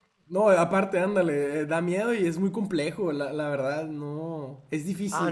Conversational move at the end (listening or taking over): taking over